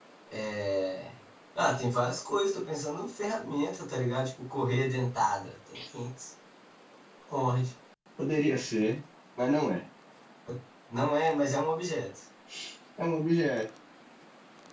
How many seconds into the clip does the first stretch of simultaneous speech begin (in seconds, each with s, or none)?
none